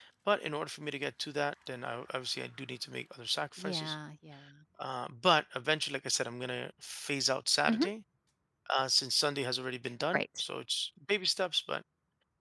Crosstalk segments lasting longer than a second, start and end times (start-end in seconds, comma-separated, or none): none